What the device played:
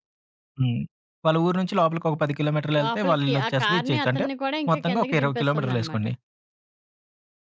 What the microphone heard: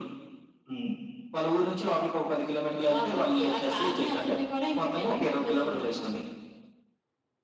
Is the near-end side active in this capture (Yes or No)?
No